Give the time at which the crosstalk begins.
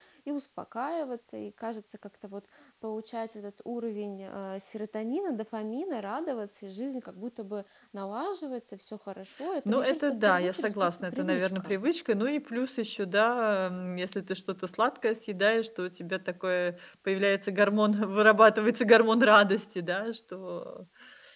10 s

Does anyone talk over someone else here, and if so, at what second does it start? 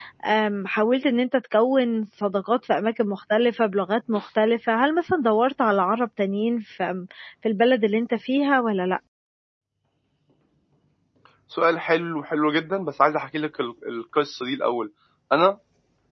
none

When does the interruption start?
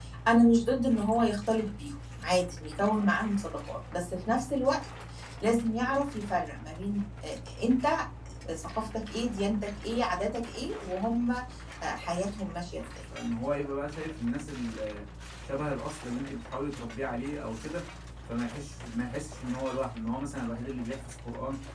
none

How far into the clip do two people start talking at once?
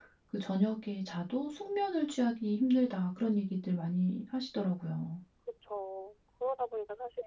none

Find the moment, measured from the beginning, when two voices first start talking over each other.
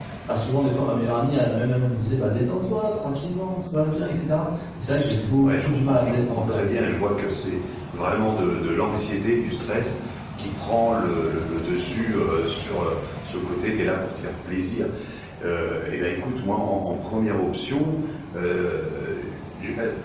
5 s

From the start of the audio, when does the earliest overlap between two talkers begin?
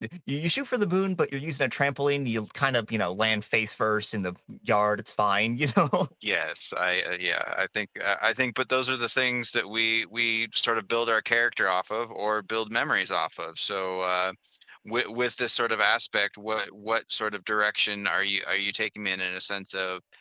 none

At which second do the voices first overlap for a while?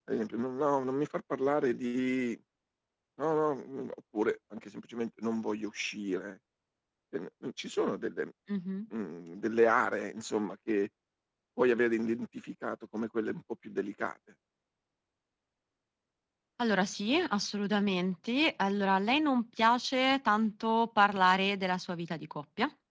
none

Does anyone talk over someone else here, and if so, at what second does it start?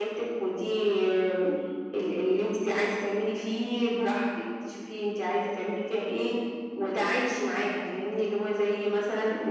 none

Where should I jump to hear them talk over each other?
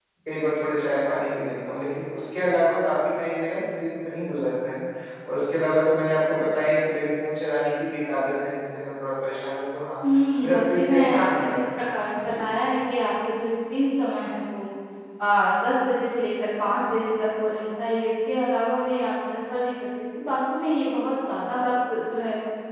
10 s

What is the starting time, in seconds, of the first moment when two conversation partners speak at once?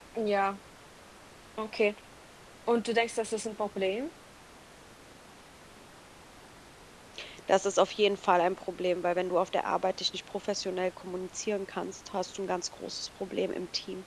none

